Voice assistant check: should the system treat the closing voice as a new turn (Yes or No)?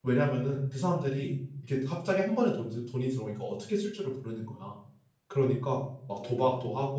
No